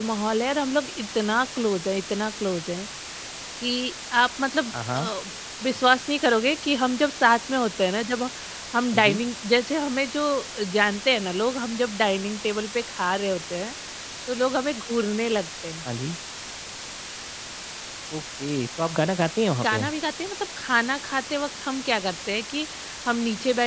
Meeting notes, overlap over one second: none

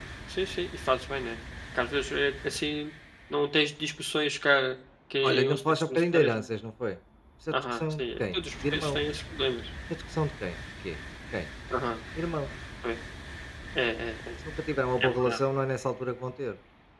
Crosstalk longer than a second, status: present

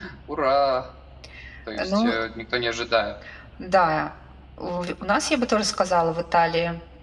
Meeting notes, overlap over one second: none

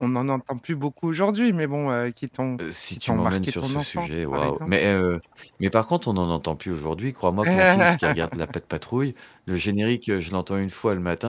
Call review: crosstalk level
present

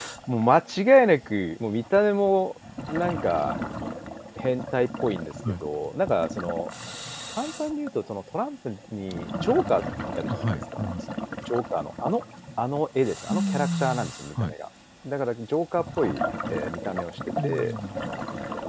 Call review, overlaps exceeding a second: present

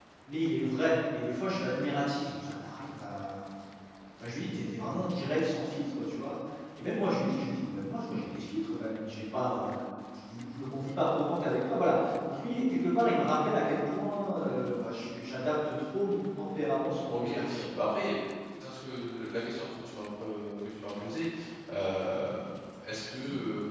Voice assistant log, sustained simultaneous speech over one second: none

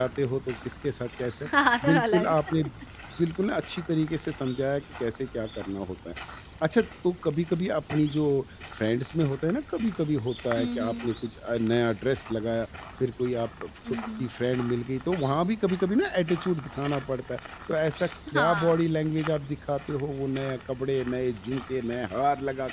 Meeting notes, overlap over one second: none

